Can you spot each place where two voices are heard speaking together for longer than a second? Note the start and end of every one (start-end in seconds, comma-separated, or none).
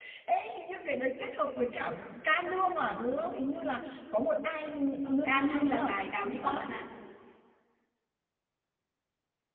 5.1-6.6